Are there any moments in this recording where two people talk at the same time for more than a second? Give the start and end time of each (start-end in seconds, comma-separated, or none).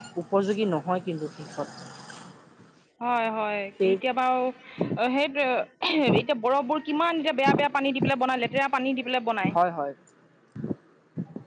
none